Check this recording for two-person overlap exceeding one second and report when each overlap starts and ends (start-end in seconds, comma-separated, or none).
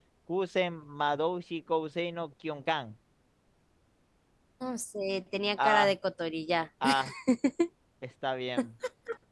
none